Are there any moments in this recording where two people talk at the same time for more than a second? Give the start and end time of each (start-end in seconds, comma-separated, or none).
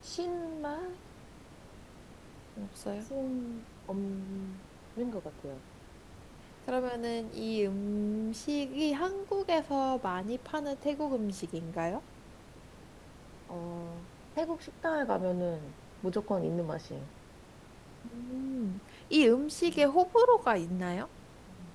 none